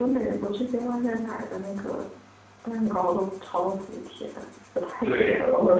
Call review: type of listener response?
taking over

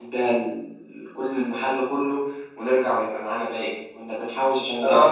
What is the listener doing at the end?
listening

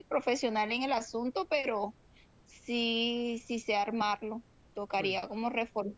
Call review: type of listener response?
listening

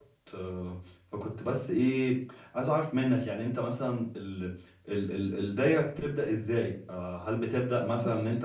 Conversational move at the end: listening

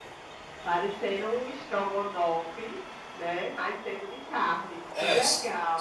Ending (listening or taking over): taking over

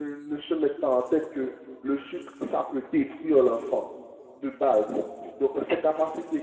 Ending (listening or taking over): listening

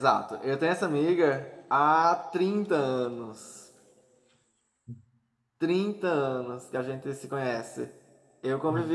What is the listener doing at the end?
listening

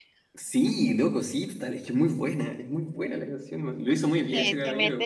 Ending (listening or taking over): taking over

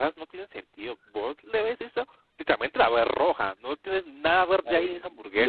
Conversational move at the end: taking over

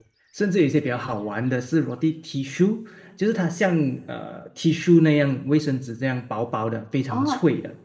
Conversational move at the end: taking over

